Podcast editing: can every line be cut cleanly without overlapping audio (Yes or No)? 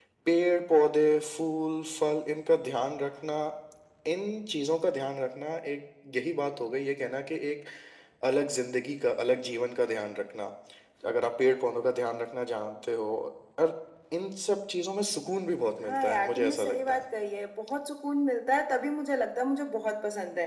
No